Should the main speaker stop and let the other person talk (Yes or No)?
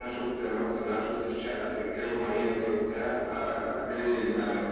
Yes